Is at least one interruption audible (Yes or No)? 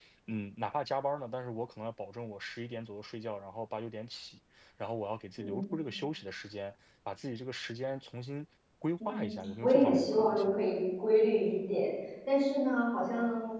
Yes